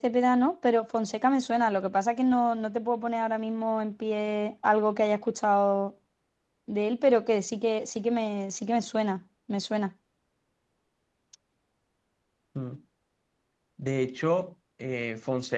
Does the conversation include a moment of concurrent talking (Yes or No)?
No